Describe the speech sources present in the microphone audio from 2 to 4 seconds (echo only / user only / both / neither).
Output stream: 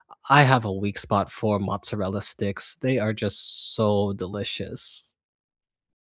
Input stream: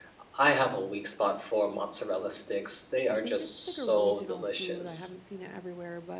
both